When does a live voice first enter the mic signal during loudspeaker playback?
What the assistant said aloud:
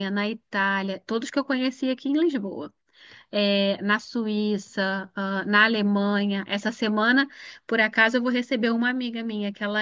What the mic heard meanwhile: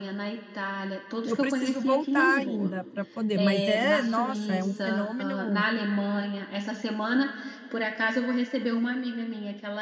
1.2 s

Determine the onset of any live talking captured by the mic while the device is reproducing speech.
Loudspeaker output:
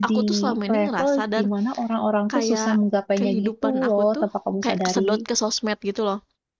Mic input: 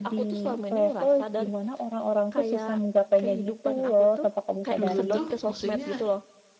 4.8 s

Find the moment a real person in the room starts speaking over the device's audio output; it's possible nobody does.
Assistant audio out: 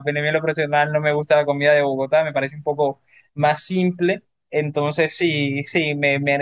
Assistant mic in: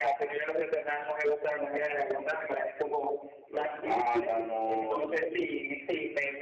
3.5 s

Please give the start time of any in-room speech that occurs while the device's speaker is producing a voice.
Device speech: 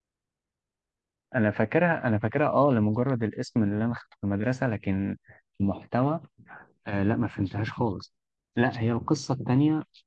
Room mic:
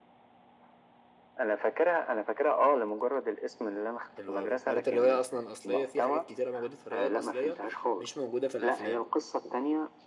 4.1 s

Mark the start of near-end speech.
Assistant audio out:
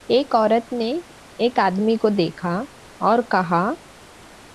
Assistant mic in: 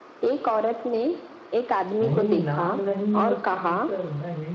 2.0 s

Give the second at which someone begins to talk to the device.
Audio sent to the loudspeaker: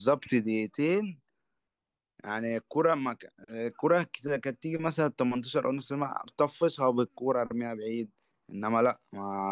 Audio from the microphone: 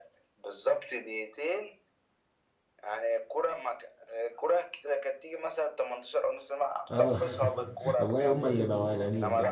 6.9 s

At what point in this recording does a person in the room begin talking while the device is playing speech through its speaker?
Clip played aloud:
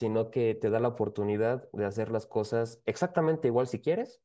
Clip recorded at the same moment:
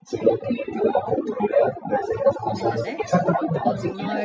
2.5 s

